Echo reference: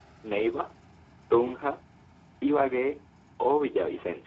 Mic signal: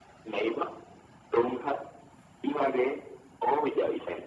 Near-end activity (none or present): none